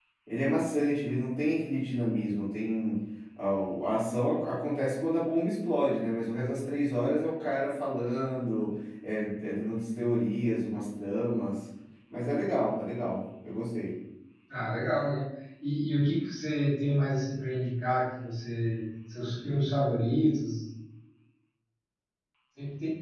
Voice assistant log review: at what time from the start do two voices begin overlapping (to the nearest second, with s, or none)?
none